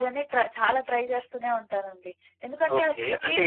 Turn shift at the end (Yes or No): Yes